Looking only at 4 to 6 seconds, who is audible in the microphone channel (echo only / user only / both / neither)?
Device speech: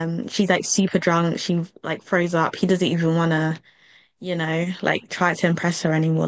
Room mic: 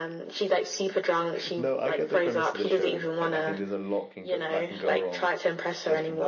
both